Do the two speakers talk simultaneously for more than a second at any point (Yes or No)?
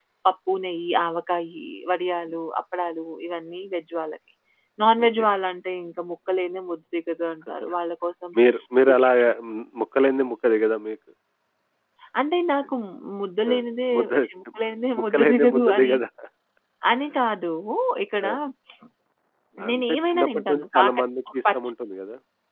Yes